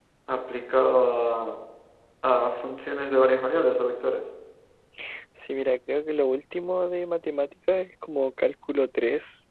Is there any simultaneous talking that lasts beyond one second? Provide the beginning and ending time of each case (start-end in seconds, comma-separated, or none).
none